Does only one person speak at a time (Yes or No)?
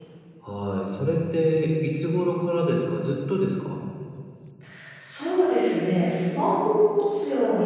Yes